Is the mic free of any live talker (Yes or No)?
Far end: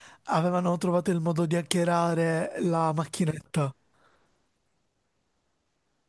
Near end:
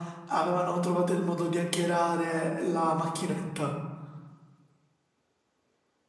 Yes